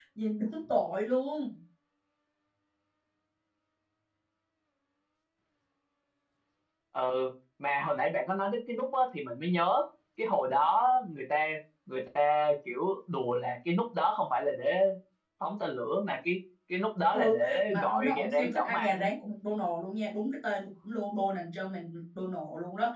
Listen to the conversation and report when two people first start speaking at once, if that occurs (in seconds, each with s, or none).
17.1 s